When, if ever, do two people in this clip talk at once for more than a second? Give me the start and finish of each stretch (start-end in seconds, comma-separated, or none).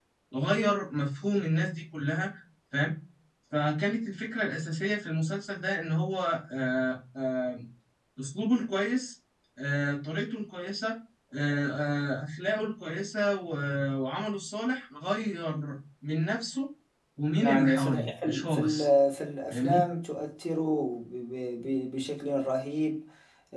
17.4-18.9